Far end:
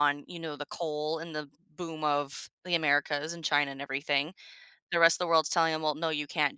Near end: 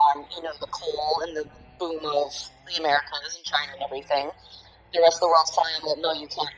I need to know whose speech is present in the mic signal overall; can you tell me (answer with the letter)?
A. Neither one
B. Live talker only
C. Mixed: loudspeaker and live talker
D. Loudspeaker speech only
D